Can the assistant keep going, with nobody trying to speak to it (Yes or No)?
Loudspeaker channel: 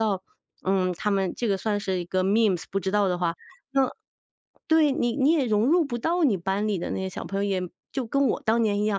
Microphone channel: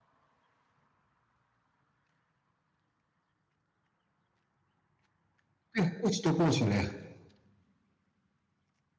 No